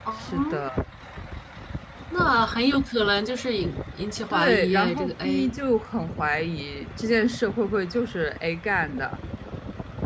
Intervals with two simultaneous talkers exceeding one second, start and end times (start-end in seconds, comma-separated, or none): 4.3-5.5